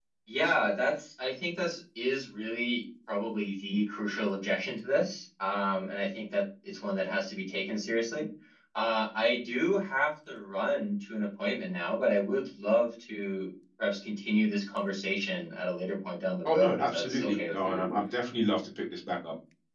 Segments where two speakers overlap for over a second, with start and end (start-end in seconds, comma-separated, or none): 16.4-17.8